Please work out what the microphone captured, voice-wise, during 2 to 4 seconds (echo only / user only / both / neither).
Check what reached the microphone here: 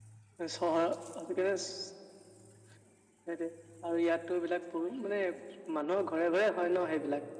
echo only